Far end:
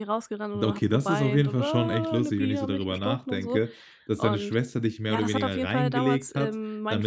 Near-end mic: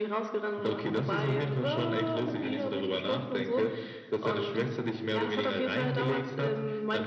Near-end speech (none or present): none